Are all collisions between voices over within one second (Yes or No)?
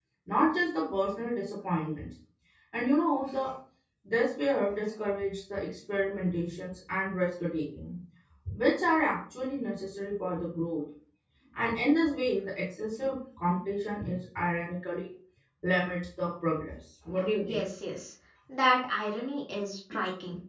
Yes